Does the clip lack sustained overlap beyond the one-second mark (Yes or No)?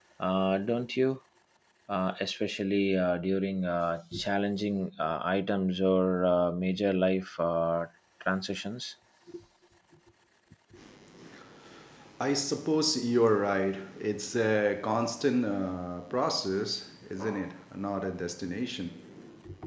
Yes